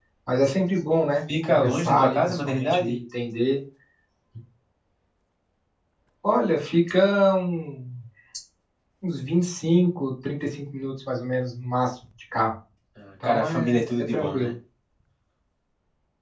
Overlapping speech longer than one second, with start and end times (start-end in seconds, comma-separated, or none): 1.4-3.0, 13.2-14.5